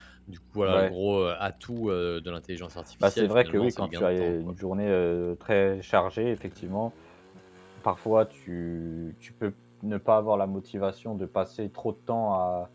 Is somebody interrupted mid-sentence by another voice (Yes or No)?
Yes